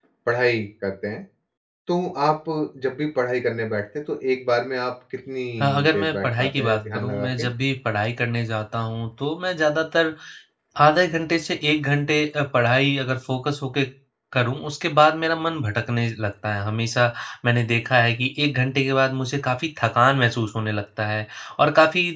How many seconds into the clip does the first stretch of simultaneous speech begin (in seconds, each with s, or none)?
5.6 s